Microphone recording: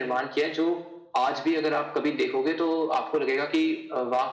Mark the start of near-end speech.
none

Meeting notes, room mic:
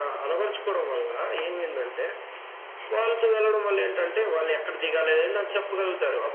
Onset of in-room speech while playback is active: none

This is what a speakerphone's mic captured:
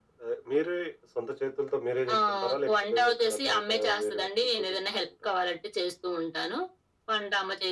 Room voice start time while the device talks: none

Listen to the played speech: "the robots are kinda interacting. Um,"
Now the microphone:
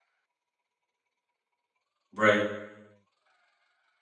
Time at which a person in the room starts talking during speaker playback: 2.1 s

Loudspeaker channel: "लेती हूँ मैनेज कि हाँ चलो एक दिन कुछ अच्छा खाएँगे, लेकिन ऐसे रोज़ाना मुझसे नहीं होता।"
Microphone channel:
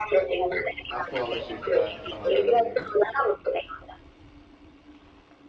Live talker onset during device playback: 0.9 s

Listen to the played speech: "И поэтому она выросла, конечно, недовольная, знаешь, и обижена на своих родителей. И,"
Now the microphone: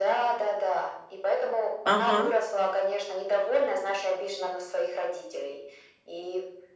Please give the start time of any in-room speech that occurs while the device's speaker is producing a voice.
1.9 s

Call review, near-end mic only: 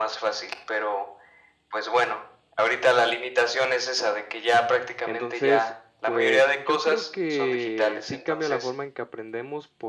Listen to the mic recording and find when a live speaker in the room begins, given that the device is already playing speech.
5.0 s

